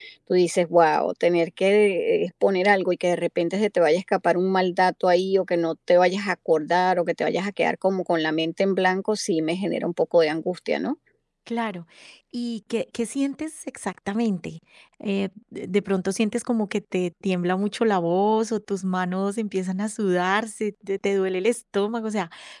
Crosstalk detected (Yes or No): No